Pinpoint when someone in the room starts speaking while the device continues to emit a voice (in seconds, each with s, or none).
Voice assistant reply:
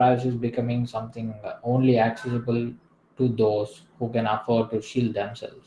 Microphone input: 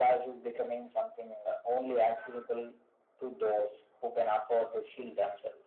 none